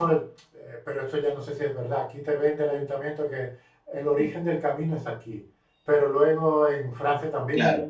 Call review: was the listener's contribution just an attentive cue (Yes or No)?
Yes